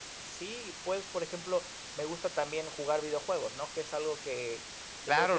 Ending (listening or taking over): taking over